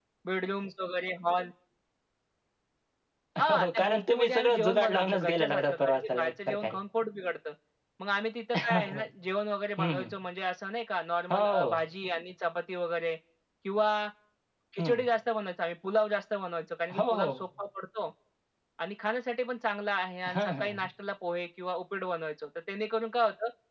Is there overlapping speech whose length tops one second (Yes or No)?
Yes